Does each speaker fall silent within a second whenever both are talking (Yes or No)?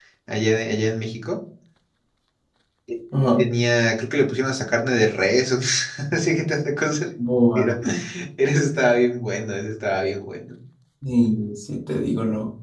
Yes